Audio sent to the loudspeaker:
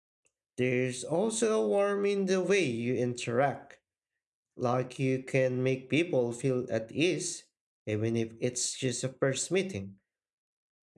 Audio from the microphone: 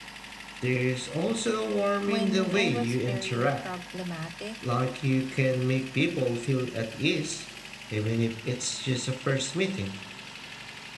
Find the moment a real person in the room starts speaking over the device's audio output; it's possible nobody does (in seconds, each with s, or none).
2.0 s